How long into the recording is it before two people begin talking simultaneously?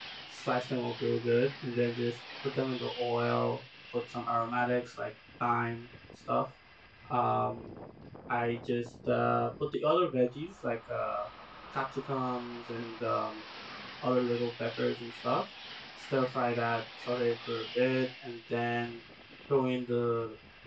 none

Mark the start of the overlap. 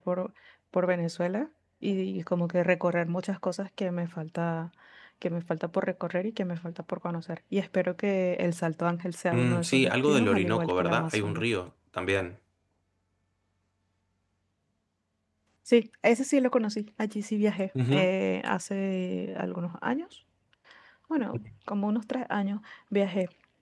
9 s

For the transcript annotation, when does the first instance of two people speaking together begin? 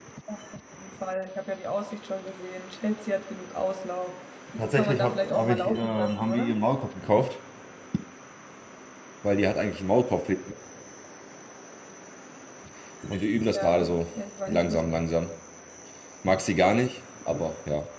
5 s

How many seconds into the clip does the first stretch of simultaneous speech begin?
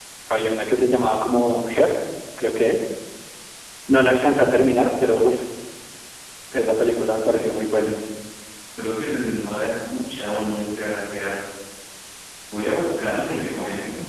none

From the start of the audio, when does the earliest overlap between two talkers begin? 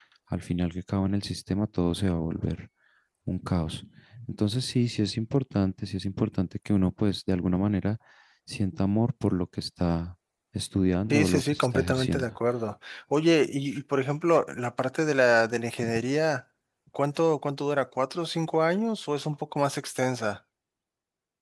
11 s

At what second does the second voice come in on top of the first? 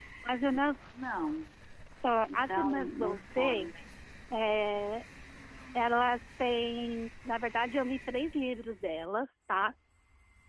2 s

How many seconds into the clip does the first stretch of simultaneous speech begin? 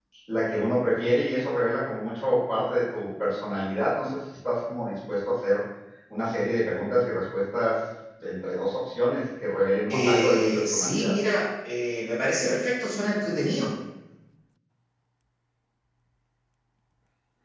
10 s

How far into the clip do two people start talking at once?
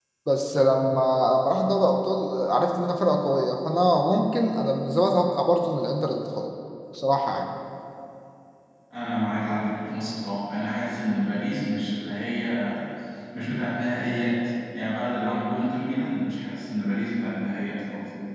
none

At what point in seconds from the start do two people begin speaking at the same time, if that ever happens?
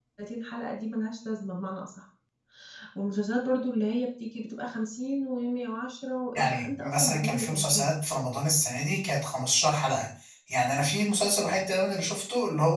6 s

